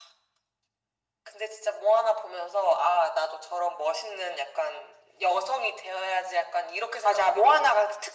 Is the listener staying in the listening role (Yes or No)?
No